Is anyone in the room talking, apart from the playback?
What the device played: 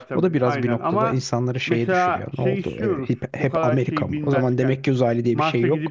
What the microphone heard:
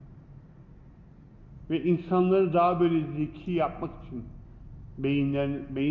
Yes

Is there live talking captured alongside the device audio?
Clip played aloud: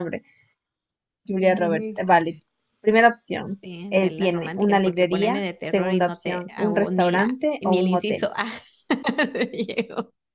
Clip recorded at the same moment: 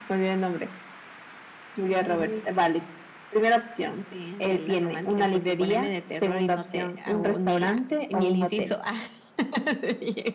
No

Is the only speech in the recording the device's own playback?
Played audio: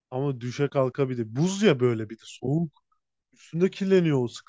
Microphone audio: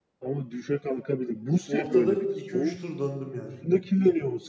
No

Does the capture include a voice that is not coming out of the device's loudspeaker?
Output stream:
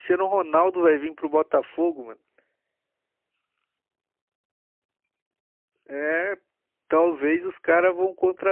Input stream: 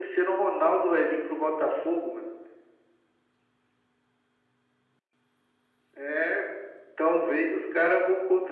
No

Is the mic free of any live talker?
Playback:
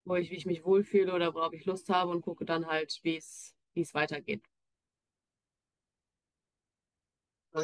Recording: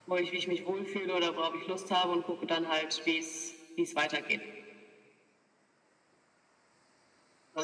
Yes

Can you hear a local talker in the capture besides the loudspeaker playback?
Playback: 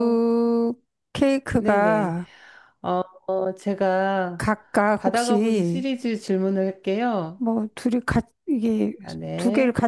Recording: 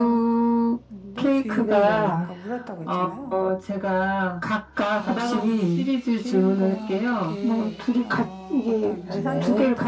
Yes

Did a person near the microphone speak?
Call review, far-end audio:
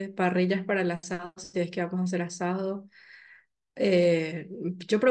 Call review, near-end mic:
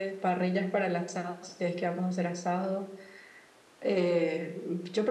No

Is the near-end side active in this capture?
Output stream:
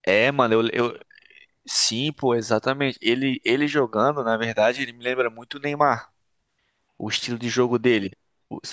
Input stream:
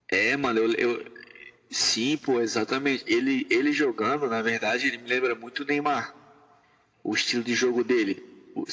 No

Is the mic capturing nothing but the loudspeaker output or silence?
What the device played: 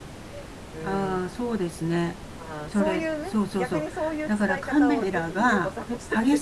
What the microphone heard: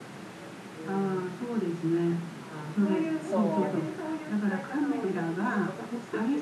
No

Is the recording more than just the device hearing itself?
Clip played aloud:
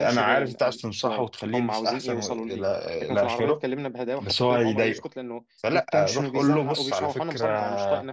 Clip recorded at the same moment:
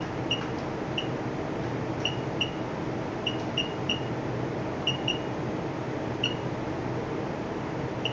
No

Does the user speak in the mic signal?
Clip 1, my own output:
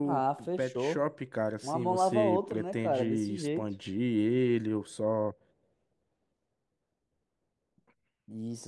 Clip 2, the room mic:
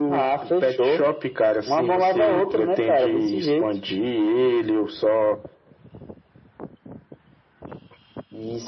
No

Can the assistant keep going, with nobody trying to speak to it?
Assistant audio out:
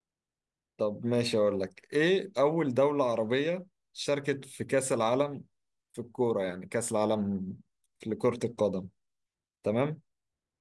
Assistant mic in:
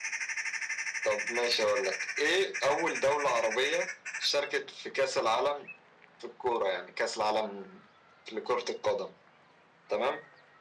Yes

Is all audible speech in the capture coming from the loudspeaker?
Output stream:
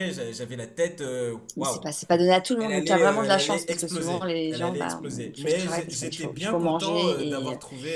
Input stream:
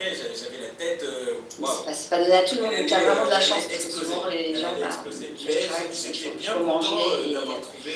Yes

